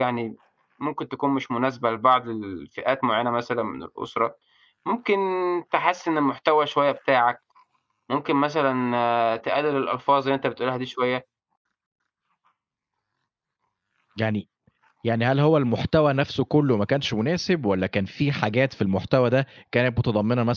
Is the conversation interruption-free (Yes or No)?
Yes